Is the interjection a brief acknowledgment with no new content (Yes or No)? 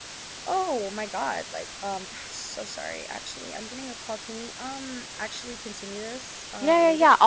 No